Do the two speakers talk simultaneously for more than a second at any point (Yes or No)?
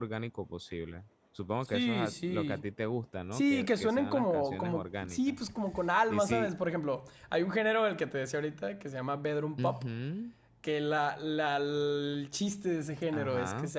Yes